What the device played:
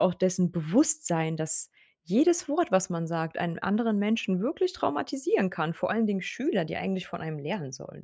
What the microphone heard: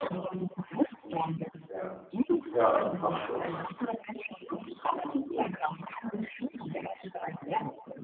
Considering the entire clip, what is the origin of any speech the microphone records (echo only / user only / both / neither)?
both